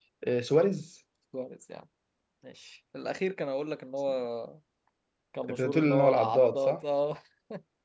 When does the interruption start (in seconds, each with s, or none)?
5.5 s